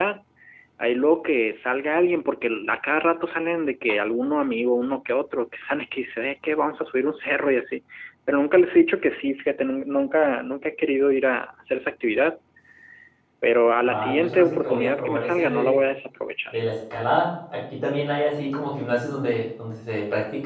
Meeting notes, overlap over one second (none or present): present